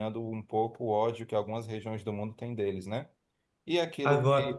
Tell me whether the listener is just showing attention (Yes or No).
Yes